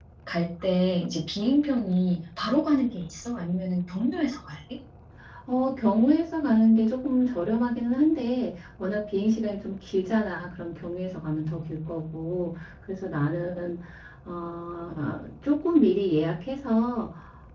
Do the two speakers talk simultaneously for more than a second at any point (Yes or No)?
No